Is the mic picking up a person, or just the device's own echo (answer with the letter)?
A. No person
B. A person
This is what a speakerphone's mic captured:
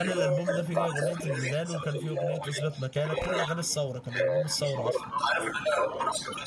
B